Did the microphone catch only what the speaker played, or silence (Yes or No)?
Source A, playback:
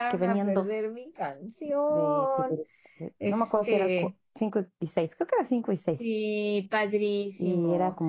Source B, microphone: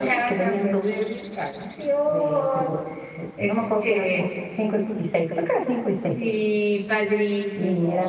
Yes